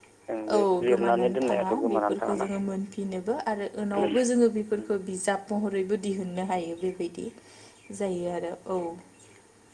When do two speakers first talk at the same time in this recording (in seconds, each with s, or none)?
0.5 s